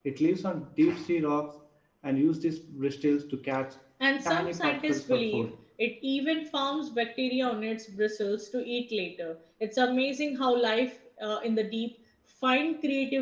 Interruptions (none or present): present